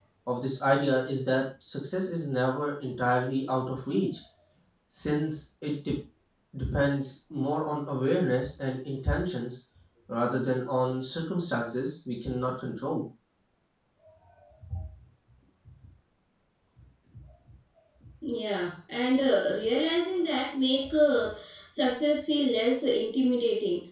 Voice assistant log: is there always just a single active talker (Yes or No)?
Yes